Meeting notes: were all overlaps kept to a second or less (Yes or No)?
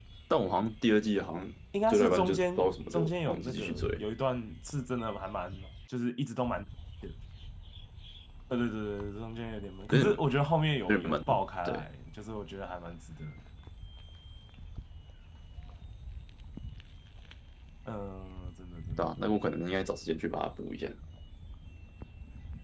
No